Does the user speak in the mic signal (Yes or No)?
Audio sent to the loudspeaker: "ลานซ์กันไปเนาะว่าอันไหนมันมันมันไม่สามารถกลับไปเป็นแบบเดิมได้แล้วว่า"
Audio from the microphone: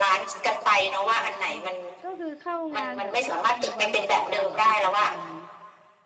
Yes